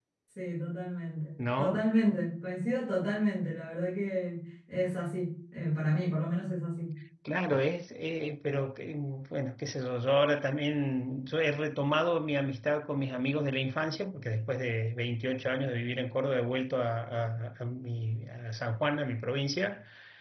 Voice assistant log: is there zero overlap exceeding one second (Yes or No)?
Yes